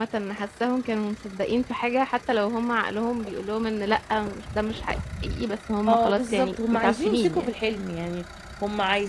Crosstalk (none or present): present